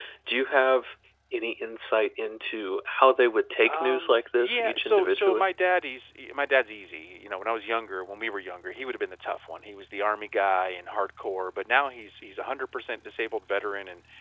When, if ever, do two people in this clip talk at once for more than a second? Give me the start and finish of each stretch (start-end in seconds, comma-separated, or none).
3.7-5.5